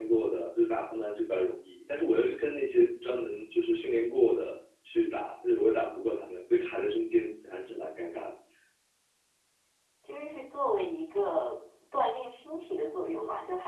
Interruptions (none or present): none